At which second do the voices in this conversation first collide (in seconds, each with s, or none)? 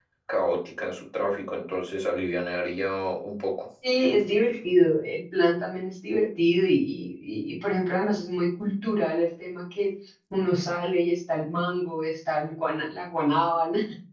none